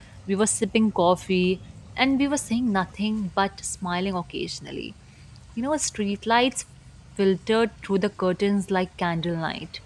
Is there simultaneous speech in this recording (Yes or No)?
No